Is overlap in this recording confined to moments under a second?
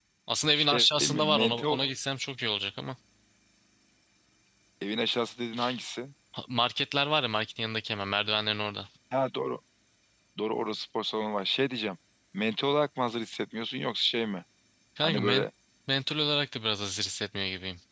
No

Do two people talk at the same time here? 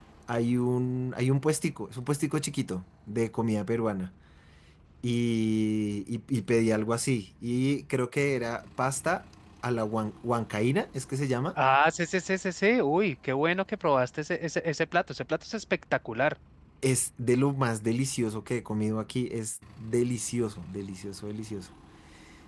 No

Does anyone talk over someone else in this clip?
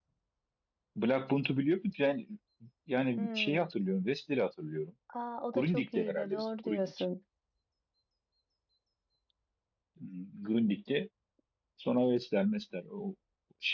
Yes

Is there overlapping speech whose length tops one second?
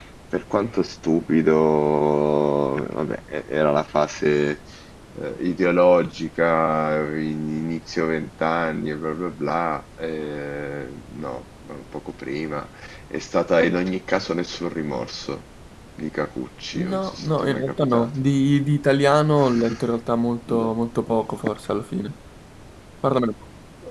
Yes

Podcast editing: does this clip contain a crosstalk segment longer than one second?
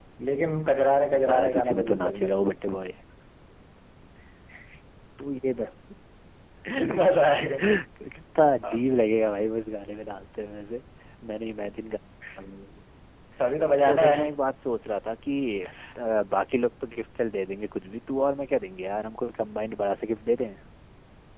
Yes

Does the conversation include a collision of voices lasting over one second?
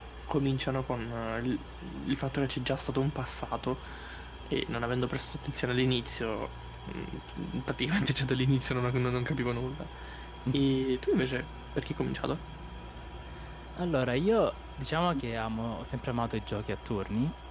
No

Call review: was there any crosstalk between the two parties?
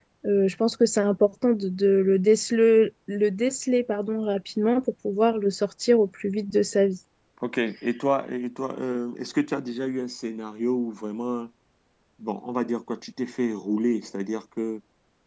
No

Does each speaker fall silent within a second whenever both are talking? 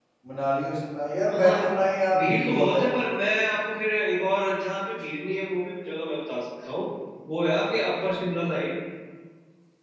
No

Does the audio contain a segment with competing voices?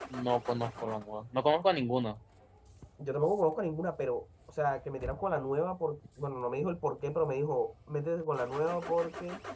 No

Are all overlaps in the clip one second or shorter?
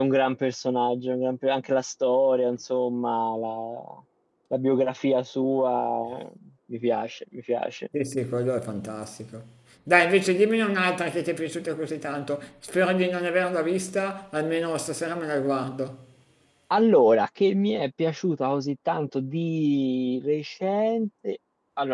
Yes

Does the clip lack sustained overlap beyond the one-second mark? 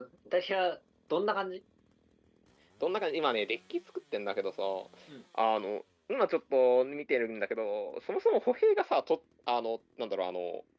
Yes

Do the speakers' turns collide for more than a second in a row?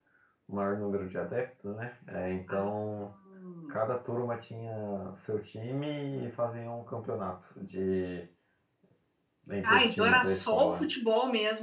Yes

